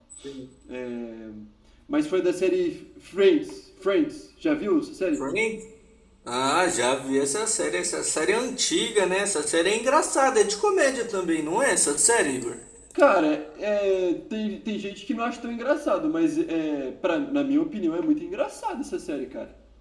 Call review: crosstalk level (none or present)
none